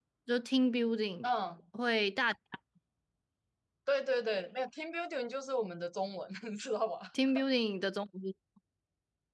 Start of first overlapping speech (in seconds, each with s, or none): none